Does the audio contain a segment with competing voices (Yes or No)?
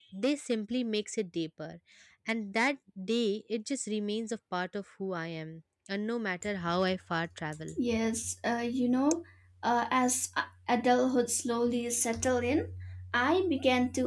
No